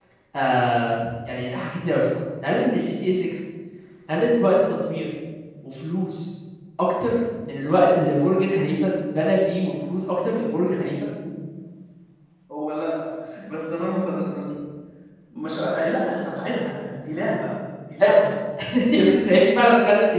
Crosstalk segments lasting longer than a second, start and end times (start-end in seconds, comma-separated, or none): none